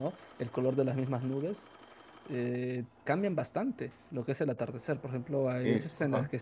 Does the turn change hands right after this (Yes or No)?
No